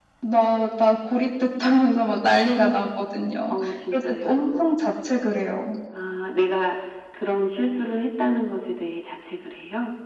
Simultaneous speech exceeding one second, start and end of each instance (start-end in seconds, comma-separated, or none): 3.5-4.8